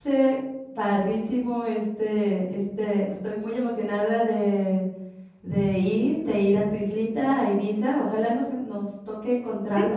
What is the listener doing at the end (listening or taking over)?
taking over